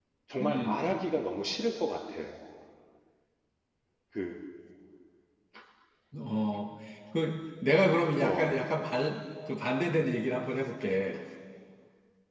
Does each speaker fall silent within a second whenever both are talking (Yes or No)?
Yes